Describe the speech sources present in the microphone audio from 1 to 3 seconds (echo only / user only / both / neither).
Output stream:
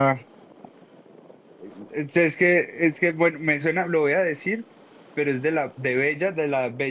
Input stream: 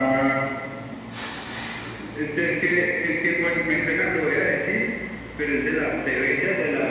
echo only